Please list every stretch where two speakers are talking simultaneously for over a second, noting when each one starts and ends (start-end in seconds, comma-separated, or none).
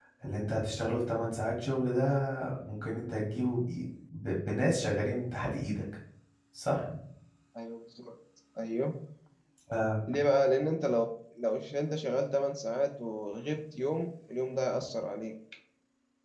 none